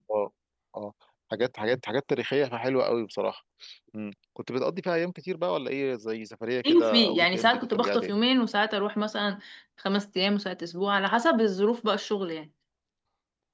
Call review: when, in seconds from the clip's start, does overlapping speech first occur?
6.6 s

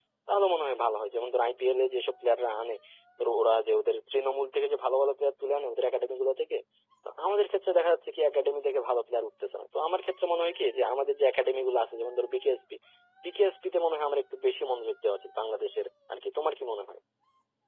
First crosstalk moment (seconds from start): none

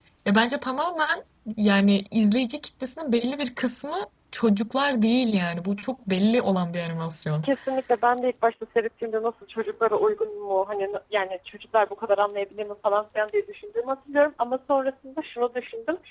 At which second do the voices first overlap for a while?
none

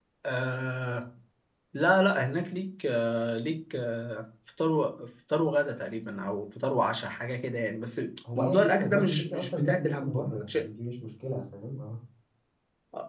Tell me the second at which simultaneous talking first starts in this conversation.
8.2 s

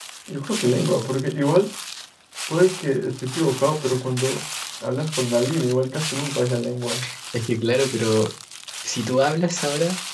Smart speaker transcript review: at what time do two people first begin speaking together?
none

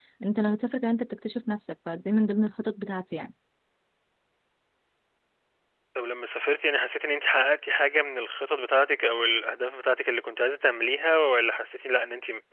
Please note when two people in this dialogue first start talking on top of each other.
none

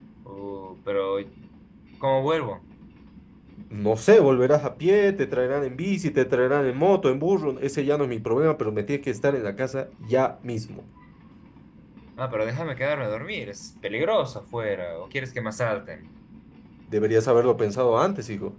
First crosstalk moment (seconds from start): none

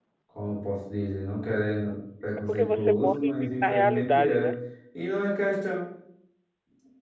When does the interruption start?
2.4 s

